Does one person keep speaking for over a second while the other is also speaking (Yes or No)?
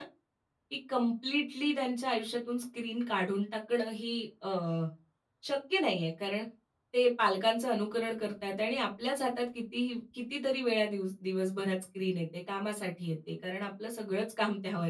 No